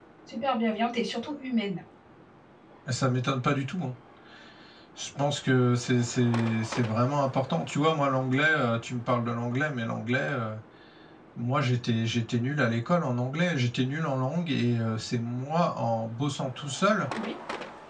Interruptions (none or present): none